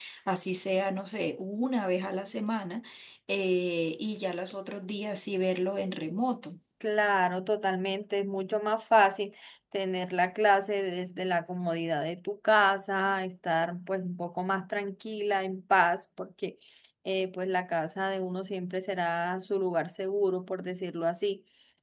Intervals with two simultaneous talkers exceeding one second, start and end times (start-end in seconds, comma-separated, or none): none